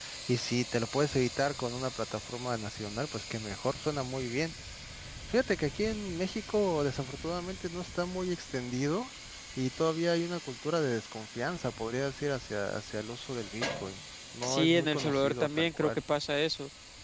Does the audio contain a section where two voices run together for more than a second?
Yes, from 14.4 s

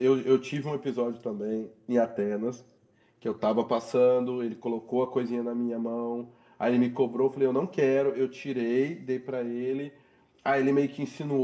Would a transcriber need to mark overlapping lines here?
No

